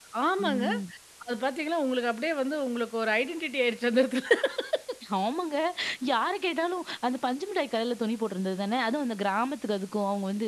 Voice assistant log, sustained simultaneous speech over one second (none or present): none